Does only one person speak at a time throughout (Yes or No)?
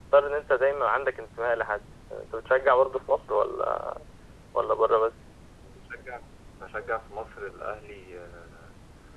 Yes